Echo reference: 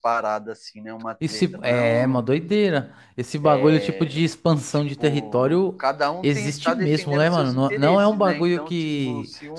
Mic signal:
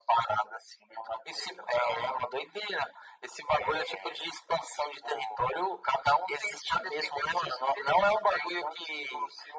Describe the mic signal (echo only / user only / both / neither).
echo only